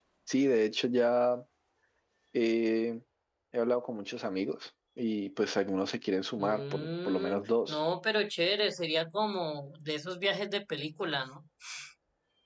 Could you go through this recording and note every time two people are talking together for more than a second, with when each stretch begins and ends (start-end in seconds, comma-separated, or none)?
6.4-7.8